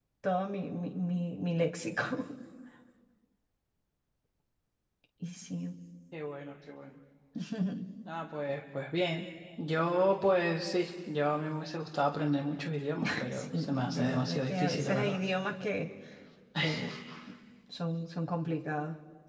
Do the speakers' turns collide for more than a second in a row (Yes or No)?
Yes